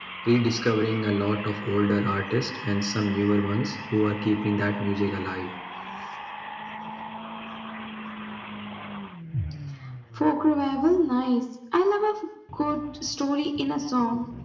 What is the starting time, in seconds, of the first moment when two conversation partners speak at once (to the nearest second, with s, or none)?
none